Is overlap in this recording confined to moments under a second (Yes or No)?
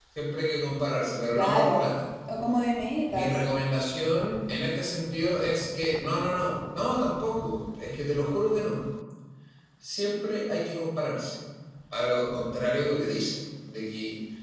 Yes